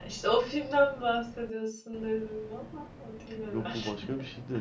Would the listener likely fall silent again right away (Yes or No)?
No